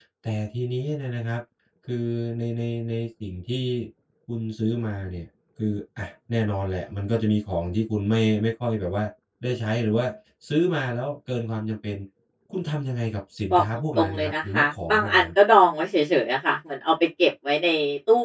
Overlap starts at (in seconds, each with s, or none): 13.5 s